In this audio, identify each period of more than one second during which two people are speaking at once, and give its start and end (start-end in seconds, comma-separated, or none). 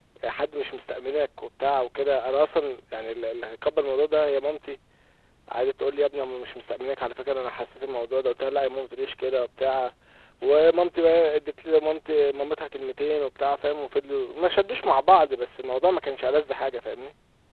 none